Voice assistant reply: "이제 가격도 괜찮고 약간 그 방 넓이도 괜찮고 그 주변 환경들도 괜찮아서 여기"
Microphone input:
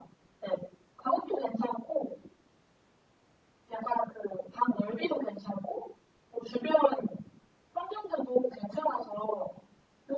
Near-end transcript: none

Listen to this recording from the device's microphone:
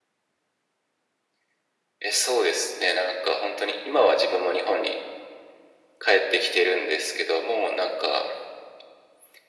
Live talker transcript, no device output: none

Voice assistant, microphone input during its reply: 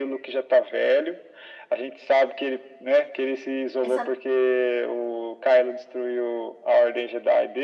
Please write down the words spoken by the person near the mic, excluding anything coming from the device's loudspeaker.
Essa,

